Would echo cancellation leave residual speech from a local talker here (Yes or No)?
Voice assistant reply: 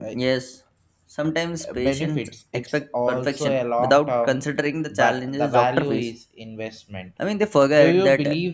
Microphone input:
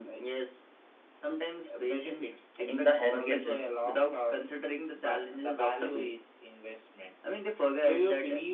Yes